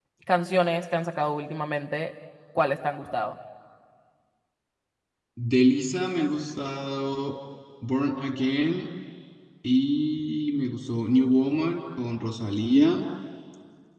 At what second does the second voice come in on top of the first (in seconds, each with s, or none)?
none